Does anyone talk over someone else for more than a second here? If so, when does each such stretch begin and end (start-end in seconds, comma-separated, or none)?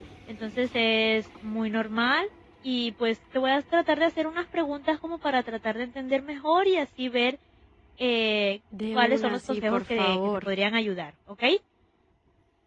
8.9-10.4